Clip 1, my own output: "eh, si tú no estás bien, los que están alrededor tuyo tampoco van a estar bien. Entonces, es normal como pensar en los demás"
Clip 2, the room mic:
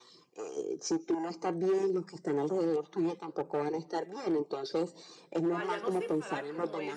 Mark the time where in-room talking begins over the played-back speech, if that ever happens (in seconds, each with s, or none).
5.5 s